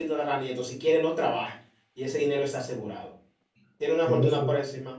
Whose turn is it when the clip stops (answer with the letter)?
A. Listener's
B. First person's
B